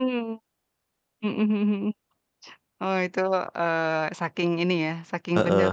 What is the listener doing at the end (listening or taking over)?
taking over